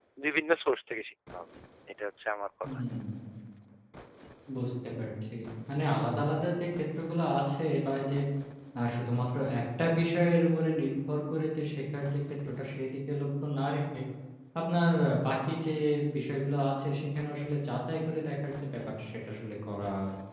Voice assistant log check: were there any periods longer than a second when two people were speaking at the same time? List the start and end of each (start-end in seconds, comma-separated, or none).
none